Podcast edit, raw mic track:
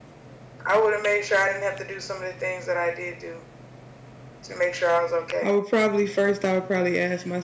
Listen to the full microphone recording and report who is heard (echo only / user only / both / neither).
both